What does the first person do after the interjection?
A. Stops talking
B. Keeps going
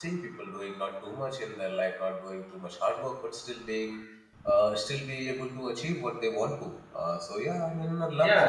A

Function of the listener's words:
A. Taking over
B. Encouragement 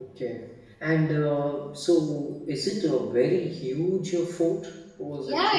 A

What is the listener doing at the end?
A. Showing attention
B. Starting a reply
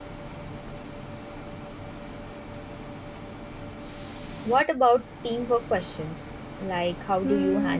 B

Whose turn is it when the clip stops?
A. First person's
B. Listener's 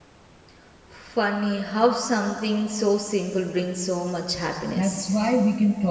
B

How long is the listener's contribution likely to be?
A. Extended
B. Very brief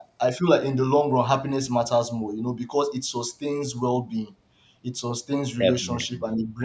B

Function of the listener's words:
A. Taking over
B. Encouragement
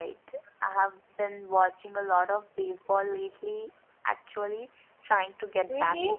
A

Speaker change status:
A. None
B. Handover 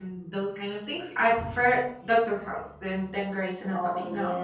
B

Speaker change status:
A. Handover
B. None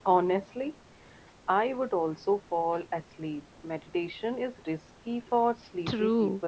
A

